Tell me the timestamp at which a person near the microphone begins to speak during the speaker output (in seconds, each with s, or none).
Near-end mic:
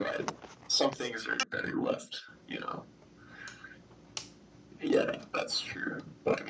none